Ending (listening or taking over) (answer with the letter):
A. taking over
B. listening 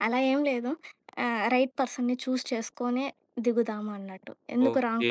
A